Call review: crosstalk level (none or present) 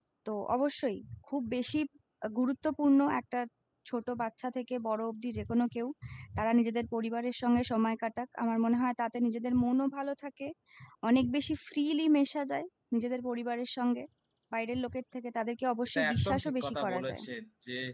present